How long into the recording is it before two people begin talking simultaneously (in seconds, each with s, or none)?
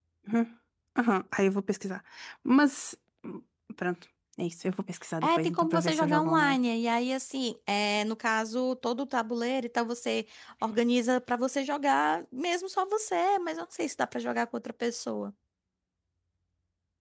5.2 s